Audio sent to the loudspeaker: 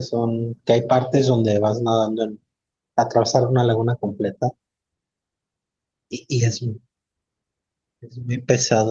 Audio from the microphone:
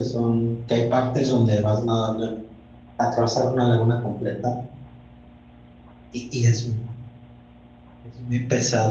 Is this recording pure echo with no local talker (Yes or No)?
Yes